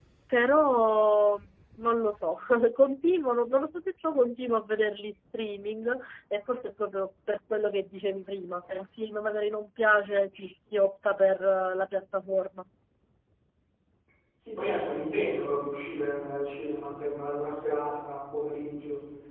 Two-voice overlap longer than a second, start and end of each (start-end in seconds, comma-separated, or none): none